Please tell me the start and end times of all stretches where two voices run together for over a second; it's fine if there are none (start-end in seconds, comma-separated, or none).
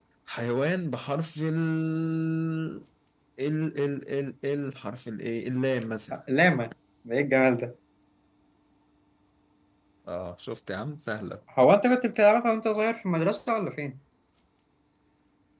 none